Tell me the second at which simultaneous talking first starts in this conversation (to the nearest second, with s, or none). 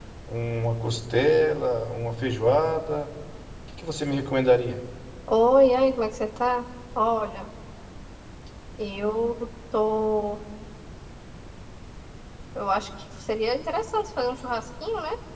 none